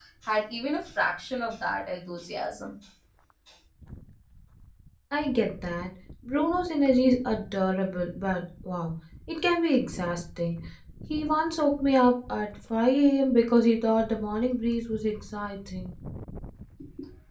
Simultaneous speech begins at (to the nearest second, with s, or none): none